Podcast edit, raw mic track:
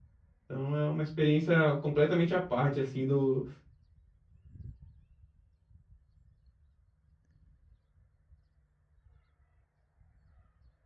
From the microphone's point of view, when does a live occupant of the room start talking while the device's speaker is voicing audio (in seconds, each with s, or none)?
0.4 s